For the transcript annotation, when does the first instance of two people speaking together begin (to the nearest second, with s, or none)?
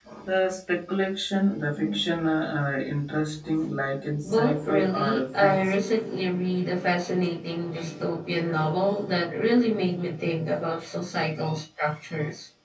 4 s